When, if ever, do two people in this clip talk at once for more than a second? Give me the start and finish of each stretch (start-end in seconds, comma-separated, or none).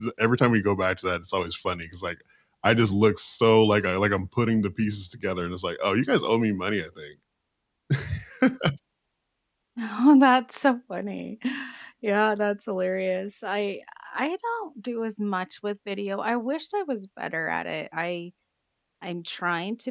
none